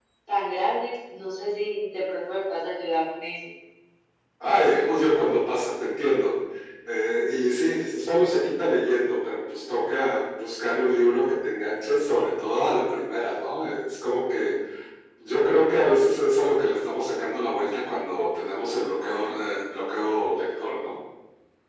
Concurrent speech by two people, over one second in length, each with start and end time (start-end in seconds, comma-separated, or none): none